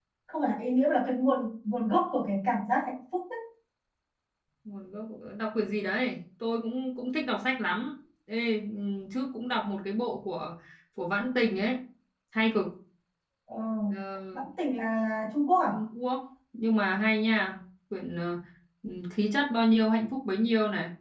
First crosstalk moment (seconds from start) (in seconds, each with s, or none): none